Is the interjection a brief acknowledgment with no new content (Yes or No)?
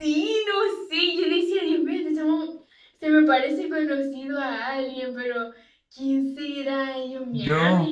Yes